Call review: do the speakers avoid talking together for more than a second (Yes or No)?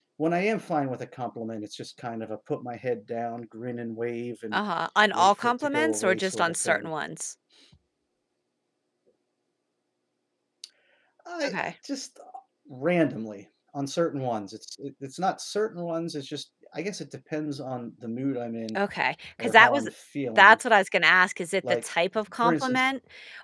No